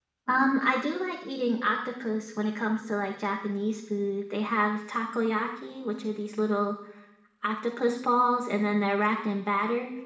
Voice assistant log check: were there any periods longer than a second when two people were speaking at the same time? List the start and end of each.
none

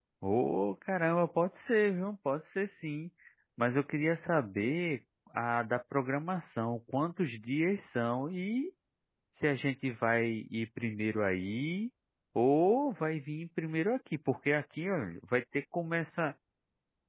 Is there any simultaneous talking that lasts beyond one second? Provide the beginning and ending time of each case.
none

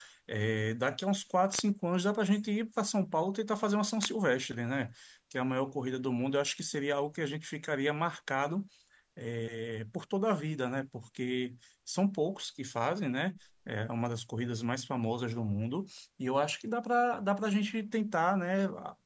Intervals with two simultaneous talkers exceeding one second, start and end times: none

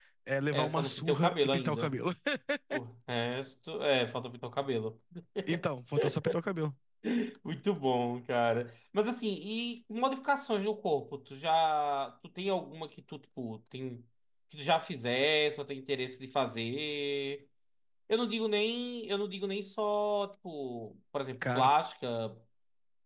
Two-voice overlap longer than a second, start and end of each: 0.5-1.9

